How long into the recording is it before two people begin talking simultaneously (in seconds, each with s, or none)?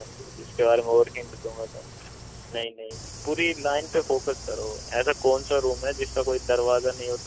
none